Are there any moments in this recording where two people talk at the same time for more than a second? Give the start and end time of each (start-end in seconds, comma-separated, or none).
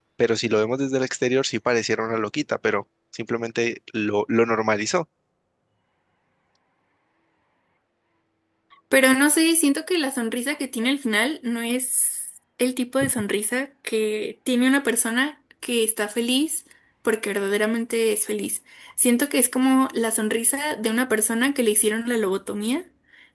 none